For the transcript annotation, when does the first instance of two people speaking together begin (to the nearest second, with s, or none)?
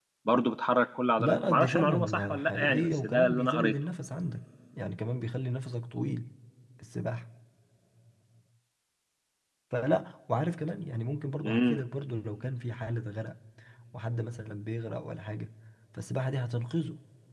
1 s